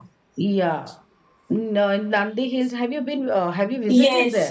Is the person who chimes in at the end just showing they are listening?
No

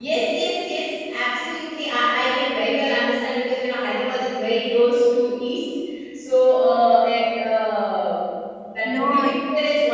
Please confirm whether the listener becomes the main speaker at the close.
No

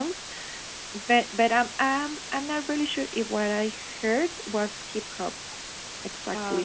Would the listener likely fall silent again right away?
Yes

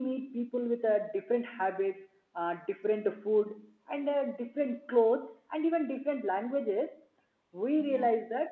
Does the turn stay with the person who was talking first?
Yes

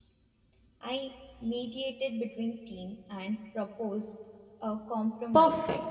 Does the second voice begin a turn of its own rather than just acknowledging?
Yes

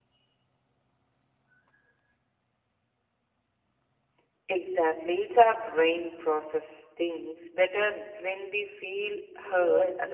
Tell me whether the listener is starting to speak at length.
Yes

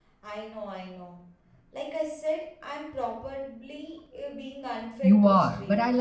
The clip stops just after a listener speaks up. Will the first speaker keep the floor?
No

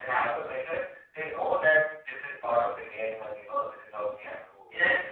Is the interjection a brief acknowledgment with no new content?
No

